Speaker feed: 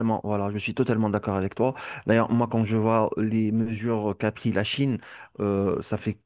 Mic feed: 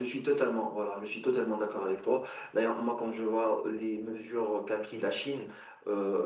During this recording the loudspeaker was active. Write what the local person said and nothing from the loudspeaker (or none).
none